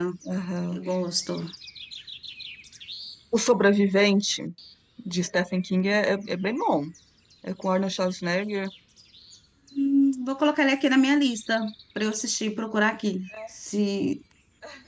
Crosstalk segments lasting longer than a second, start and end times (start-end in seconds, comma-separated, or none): none